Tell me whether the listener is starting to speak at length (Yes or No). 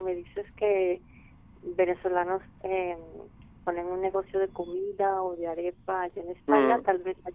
No